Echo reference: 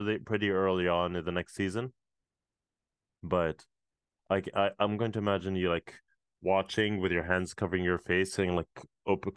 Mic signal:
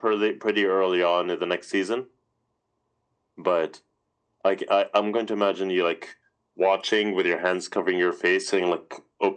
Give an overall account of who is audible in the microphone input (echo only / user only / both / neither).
echo only